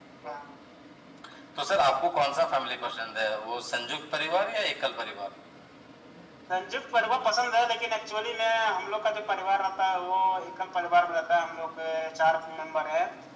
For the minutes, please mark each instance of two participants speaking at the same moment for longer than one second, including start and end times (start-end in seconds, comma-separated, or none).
none